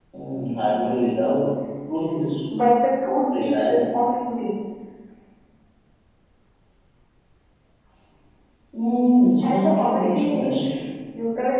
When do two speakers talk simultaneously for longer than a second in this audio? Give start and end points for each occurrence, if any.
9.4-10.7

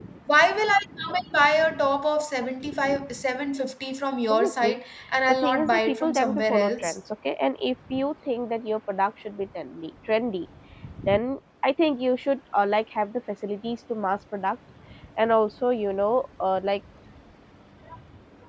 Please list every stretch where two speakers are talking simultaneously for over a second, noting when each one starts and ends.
5.4-7.0

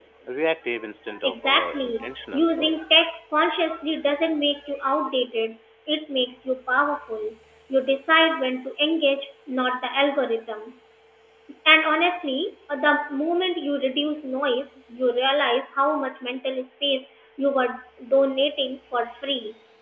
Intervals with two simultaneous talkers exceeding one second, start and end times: 1.2-2.5

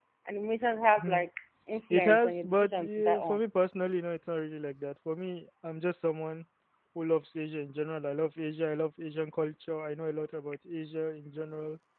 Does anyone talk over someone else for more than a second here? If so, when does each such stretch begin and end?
1.9-3.4

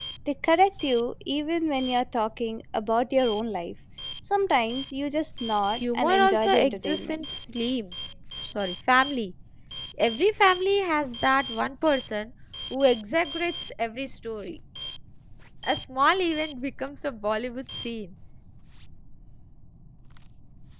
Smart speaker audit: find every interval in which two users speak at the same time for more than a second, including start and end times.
6.0-7.2

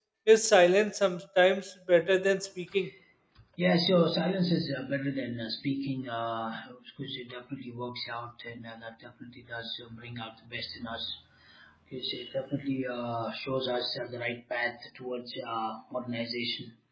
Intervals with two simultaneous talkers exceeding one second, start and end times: none

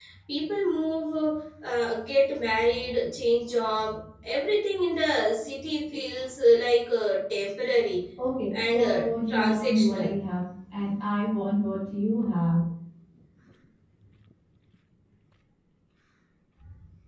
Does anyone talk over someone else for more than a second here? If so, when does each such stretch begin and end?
8.5-10.1

